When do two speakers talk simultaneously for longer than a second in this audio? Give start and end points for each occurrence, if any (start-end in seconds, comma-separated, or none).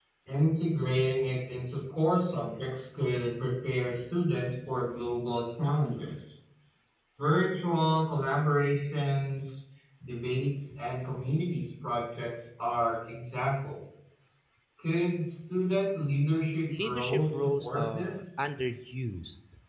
16.8-18.2